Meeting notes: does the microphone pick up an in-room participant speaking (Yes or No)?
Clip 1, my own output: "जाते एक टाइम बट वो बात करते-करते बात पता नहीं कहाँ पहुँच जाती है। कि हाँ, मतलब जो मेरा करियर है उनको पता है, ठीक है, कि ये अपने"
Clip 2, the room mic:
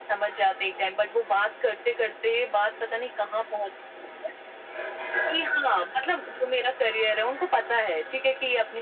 No